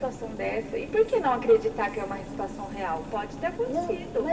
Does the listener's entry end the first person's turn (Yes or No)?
Yes